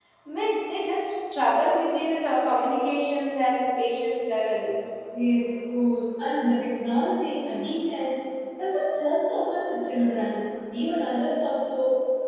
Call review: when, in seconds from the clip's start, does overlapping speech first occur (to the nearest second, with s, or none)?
none